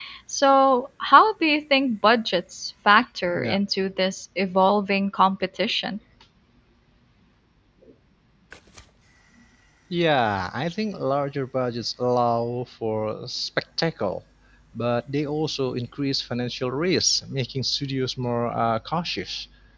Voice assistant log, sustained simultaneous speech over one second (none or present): none